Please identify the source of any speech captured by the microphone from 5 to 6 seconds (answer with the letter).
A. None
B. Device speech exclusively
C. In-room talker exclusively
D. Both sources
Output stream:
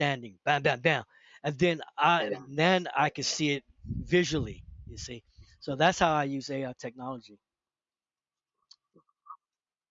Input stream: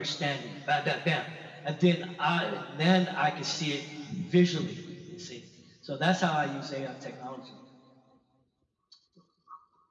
B